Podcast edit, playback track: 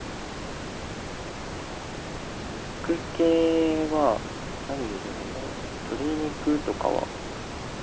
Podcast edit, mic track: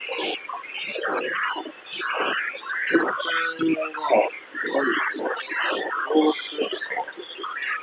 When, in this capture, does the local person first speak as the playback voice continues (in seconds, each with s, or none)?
none